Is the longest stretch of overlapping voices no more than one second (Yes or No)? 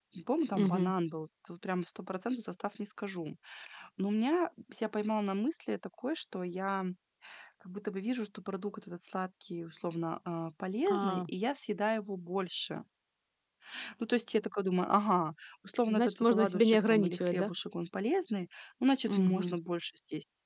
No